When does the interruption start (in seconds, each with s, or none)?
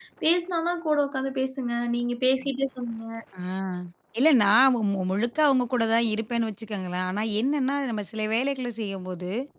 none